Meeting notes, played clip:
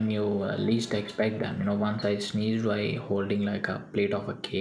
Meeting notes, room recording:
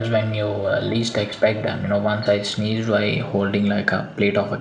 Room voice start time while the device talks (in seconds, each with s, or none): none